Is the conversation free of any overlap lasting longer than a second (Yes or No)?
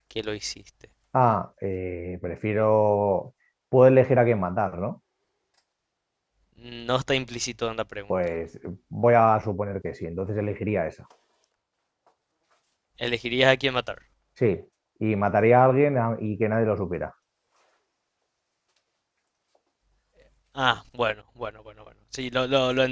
Yes